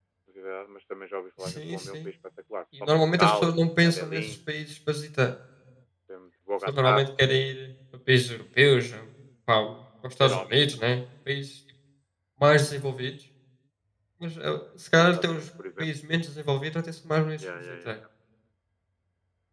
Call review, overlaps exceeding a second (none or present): present